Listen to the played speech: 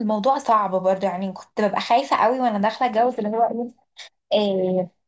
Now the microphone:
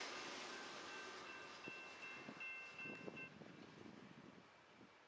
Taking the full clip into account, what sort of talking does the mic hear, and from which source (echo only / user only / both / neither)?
neither